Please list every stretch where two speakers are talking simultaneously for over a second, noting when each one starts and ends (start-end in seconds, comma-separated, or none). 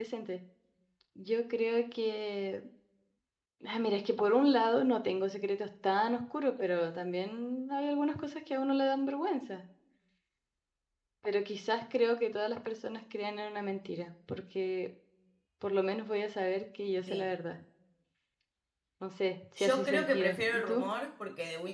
19.6-20.9